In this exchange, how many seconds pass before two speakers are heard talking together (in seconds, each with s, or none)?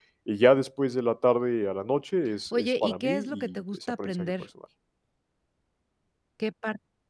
2.5 s